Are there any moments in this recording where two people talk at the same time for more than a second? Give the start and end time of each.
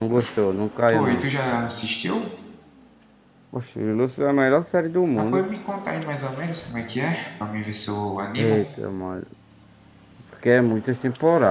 none

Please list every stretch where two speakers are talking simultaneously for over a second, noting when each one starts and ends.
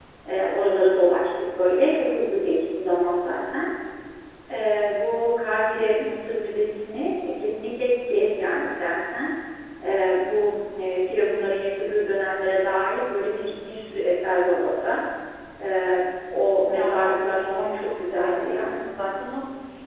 16.7-18.9

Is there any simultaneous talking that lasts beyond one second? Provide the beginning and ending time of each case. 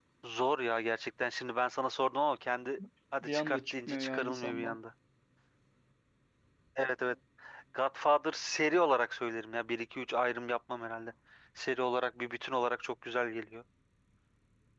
3.2-4.8

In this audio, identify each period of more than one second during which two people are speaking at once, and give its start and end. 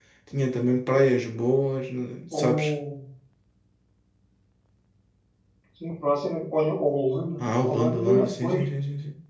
7.4-8.6

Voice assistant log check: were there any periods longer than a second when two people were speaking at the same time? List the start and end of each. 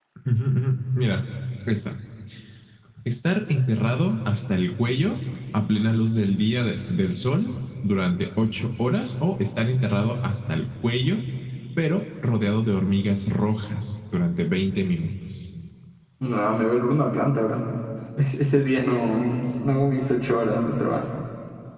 none

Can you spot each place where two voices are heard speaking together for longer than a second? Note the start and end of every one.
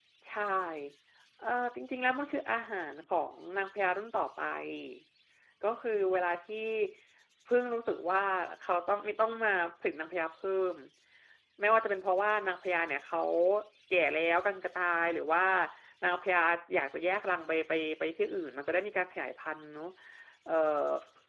none

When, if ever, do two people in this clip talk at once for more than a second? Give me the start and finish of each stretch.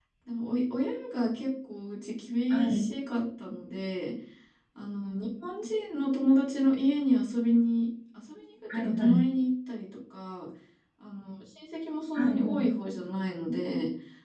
none

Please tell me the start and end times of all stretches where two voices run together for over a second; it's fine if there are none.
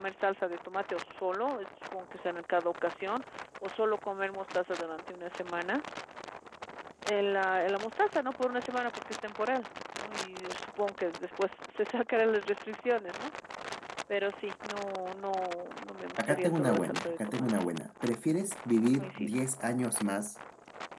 16.2-17.5

